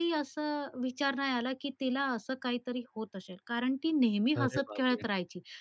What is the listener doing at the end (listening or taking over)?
listening